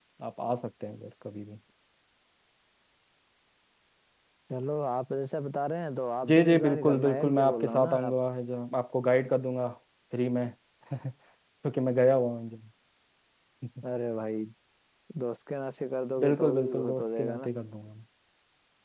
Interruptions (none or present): present